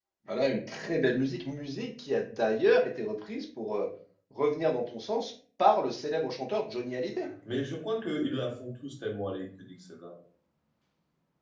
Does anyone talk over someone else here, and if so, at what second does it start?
none

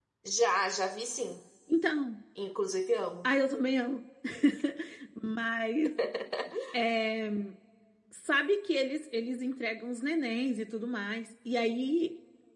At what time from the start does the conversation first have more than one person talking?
none

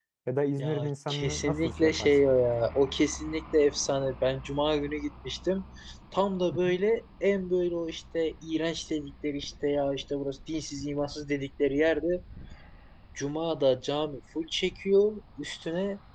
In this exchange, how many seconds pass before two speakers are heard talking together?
1 s

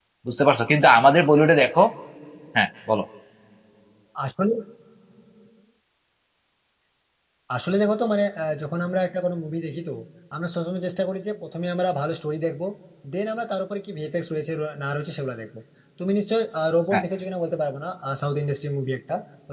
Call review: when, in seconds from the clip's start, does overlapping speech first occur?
none

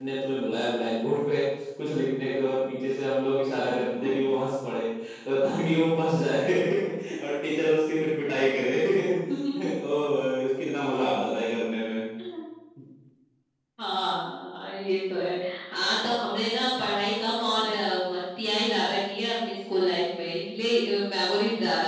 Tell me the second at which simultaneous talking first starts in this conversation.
none

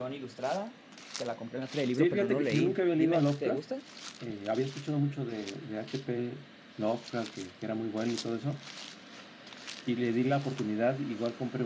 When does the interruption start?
2 s

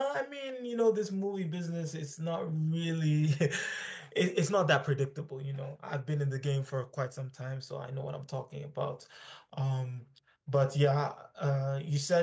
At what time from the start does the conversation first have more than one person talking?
none

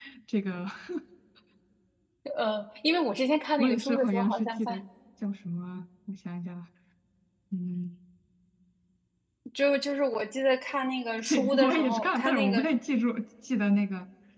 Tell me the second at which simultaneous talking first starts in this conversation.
4 s

